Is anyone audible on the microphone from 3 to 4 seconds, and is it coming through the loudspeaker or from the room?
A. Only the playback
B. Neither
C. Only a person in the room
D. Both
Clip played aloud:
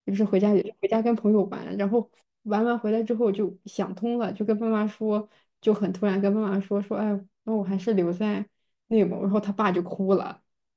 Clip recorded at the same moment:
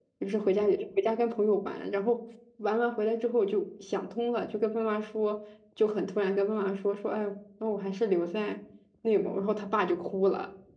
A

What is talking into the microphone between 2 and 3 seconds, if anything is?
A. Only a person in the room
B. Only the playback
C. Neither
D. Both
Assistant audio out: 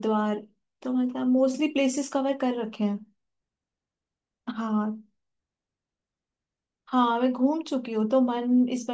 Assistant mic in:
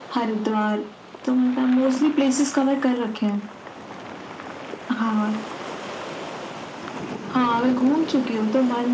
B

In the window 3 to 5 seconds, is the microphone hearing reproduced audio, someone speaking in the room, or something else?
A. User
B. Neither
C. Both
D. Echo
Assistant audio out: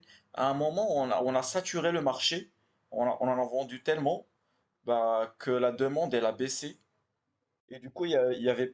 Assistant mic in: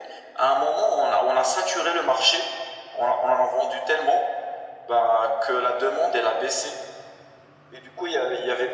D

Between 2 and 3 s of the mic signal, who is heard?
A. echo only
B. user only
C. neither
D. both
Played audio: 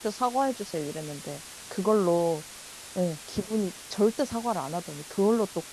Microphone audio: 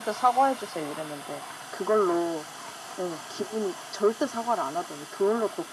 A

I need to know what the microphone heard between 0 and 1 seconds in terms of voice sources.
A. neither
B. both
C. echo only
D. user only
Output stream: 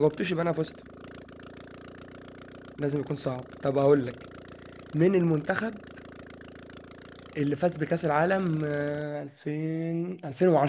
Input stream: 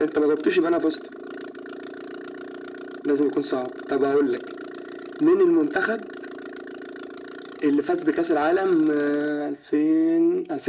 C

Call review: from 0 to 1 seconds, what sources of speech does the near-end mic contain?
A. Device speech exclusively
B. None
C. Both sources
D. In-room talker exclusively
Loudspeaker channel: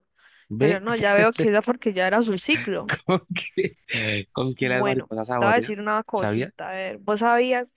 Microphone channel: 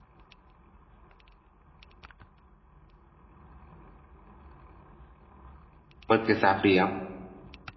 B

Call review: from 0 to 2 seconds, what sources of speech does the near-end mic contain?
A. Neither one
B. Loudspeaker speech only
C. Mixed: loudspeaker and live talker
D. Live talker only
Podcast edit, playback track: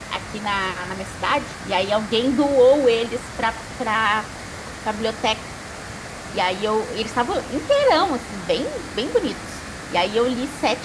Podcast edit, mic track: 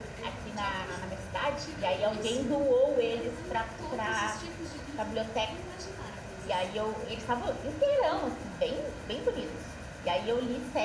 C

